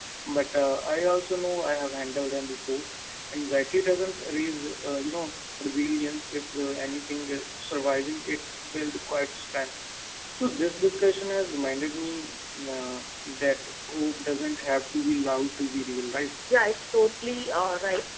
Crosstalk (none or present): none